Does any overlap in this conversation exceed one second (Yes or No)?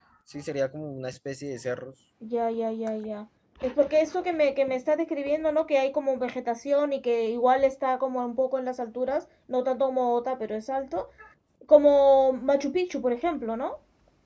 No